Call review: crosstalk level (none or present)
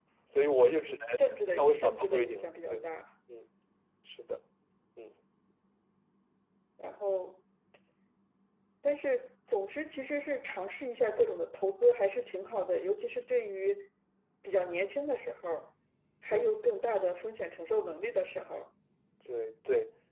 present